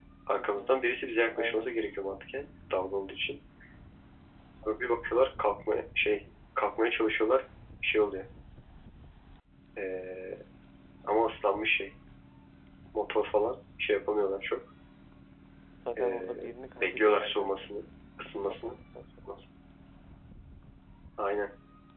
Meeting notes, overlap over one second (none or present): present